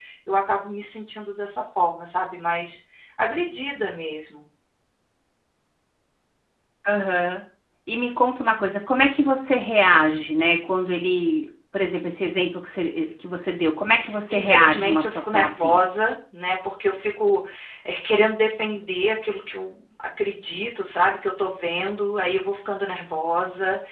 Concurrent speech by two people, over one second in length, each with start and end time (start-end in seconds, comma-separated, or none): 14.3-15.8